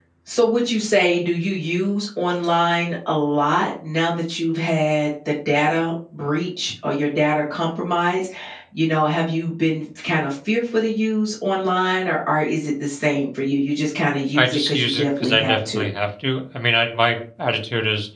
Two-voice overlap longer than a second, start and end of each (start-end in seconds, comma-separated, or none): 14.3-15.8